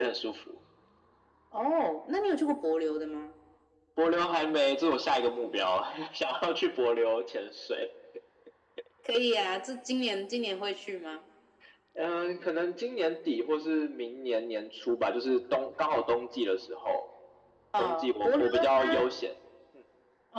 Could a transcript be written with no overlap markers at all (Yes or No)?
No